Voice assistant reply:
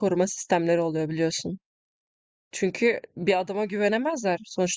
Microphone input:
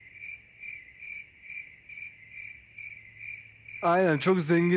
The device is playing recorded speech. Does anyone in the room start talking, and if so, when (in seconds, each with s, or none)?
3.8 s